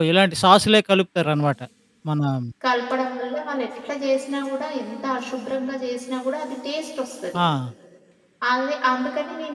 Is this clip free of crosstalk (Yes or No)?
Yes